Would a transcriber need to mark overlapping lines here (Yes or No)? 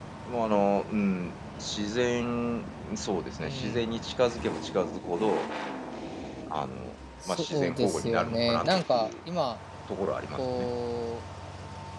Yes